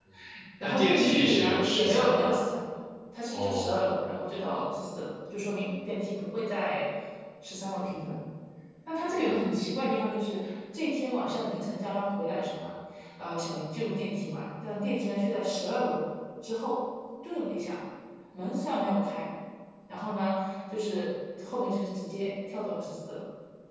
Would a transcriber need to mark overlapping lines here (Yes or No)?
Yes